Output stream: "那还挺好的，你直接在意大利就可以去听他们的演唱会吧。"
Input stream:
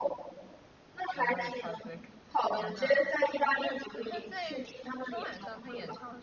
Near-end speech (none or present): present